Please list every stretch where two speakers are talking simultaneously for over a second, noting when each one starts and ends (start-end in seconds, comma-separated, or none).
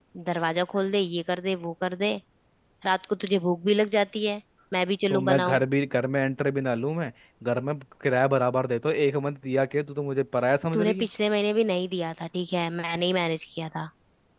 none